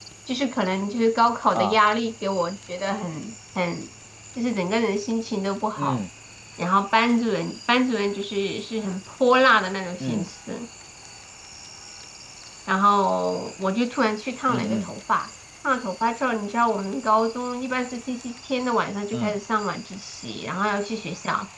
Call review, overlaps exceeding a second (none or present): none